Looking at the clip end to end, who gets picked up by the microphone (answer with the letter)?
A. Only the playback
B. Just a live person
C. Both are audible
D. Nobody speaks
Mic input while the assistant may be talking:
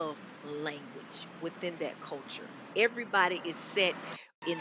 B